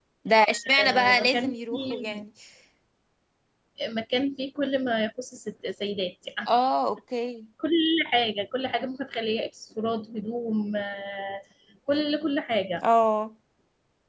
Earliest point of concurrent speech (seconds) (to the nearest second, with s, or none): 1 s